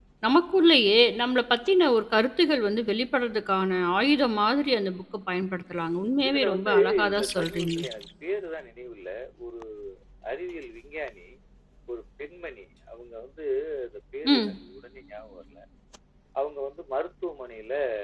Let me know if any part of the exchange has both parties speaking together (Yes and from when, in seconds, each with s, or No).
Yes, from 6.3 s